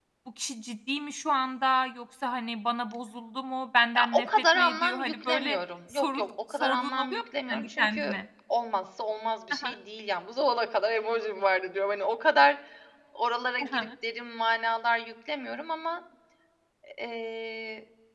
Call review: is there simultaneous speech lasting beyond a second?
Yes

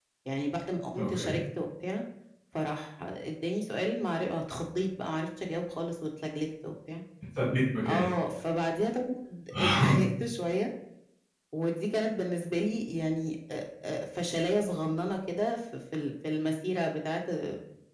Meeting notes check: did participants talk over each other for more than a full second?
No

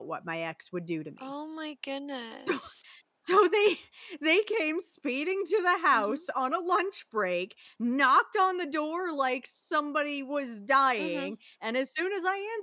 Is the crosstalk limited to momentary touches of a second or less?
Yes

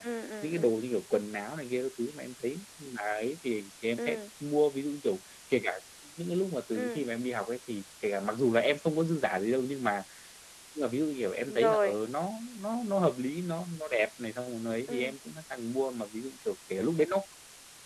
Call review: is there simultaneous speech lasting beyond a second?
No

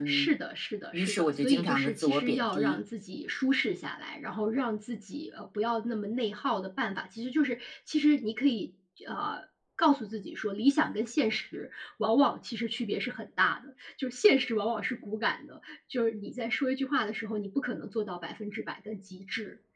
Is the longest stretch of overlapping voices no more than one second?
No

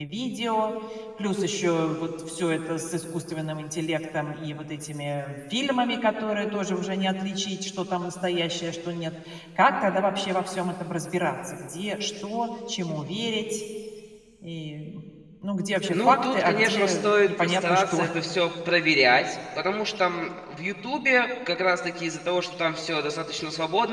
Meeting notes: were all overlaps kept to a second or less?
No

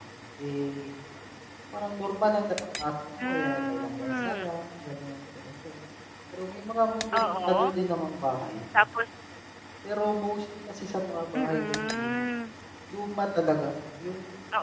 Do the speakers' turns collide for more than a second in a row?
Yes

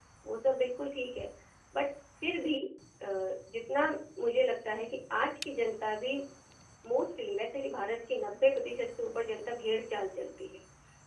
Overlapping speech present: No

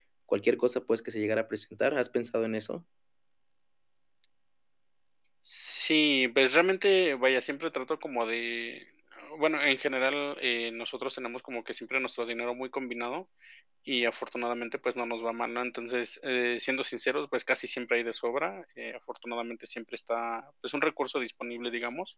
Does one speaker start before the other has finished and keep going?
No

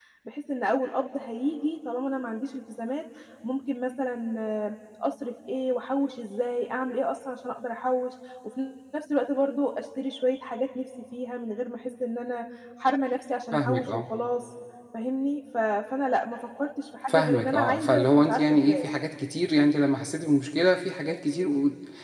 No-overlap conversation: No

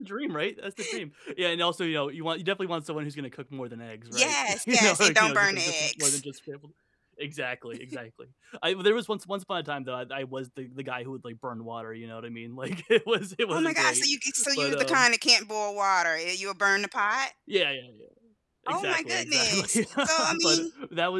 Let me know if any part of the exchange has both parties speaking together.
Yes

